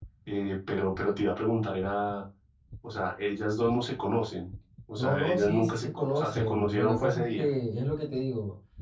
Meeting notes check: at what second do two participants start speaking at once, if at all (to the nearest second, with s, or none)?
5 s